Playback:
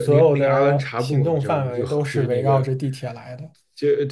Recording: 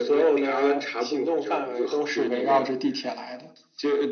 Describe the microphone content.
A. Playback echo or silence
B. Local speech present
A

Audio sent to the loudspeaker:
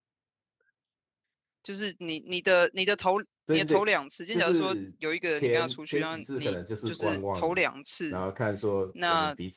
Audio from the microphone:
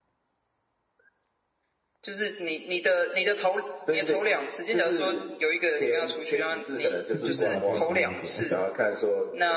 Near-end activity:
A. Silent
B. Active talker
B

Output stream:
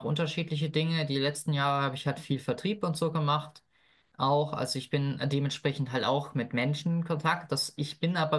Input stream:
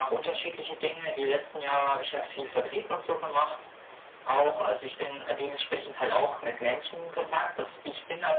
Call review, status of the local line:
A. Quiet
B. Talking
A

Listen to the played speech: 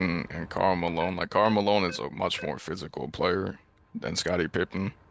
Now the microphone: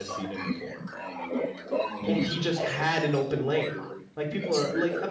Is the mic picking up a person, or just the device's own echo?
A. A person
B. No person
A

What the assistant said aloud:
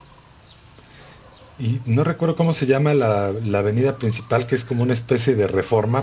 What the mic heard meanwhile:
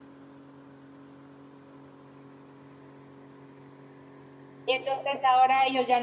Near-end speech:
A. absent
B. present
B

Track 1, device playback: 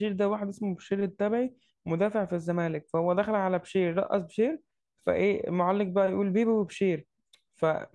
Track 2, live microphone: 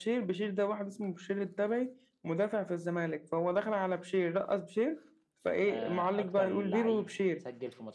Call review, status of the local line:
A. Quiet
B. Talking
B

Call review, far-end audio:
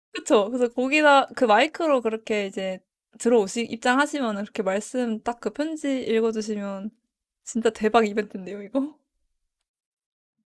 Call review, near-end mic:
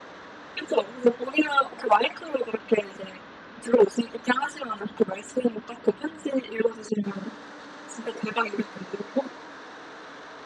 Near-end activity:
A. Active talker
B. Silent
B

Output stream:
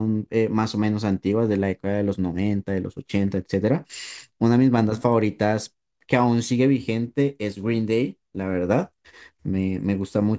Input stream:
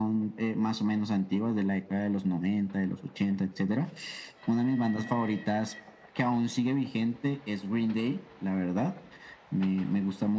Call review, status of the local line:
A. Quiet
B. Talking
A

